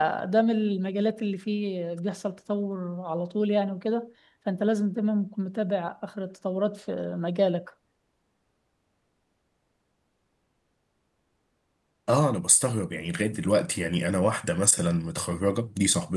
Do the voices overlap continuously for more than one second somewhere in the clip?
No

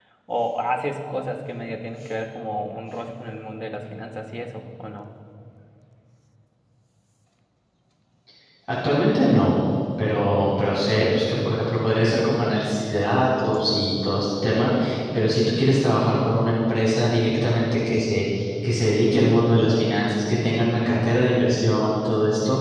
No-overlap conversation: Yes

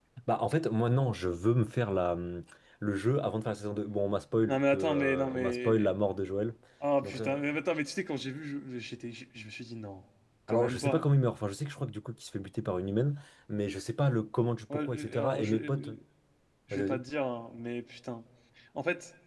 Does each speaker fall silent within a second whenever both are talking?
No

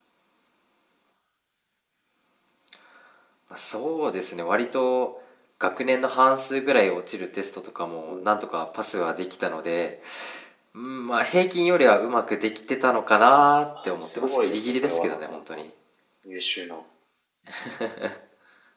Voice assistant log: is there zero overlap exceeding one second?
No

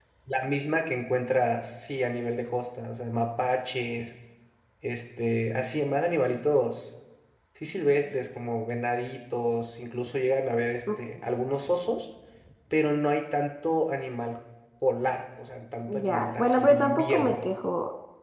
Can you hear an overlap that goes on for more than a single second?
Yes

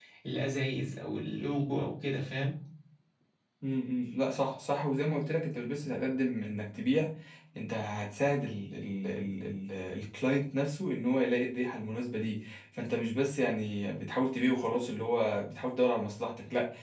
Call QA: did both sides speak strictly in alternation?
Yes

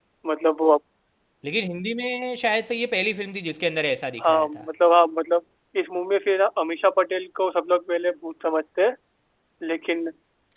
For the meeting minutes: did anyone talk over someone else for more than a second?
No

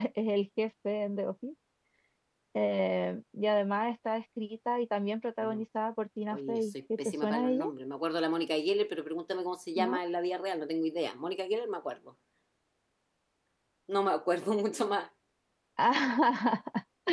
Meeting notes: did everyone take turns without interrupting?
No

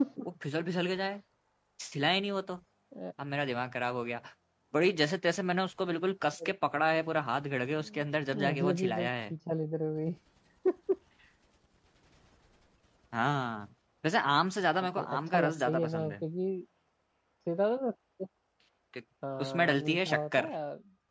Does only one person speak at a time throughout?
No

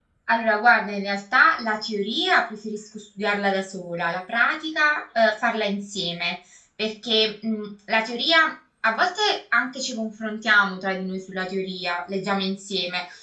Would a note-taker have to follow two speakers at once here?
No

